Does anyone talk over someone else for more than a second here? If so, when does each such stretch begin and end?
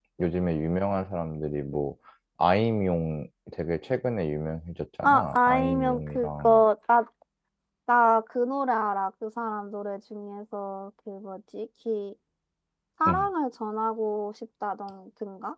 5.0-6.6

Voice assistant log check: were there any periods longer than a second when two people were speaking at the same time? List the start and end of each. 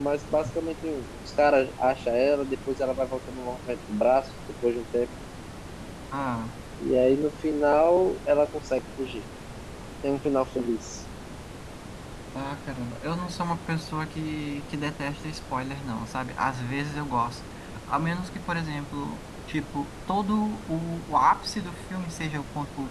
none

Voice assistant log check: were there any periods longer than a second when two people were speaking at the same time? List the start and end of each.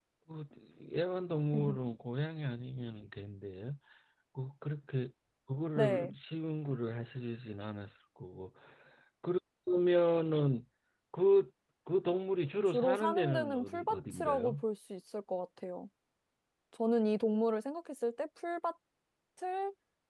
12.7-14.6

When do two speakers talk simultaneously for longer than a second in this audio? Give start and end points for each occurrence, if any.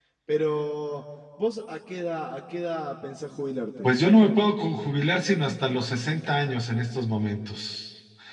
none

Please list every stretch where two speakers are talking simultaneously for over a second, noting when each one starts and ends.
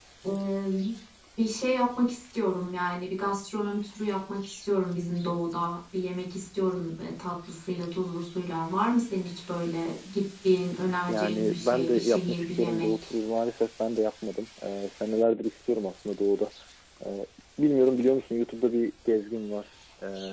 11.1-12.9

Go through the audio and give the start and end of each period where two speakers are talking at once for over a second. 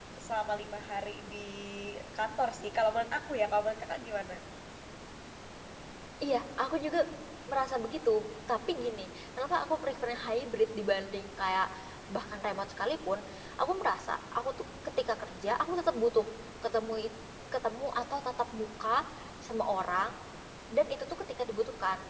none

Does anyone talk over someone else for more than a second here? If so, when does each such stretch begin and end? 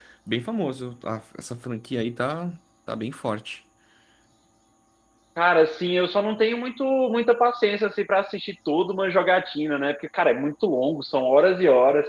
none

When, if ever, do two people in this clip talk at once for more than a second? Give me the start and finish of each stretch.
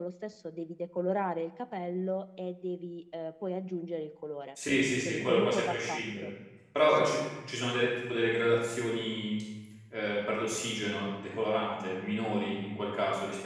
5.0-6.3

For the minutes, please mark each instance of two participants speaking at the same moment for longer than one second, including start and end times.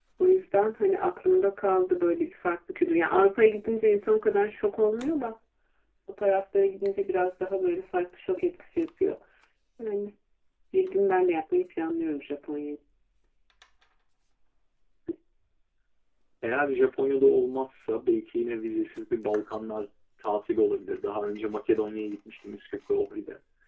none

